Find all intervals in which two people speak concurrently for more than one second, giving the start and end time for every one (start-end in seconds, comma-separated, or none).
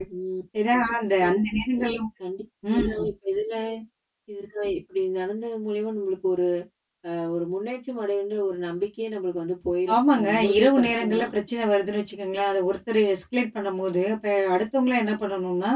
9.9-11.3